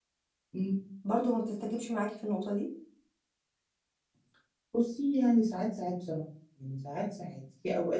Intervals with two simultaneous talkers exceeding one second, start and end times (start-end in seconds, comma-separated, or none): none